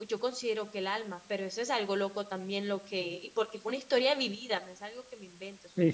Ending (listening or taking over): taking over